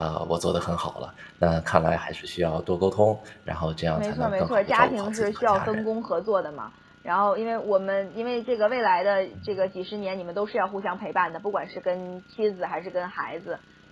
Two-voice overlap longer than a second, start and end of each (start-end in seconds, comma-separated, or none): 4.0-5.8